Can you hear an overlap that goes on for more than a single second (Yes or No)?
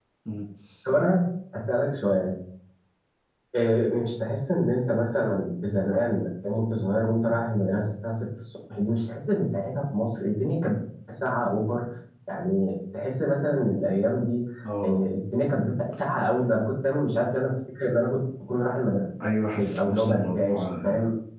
Yes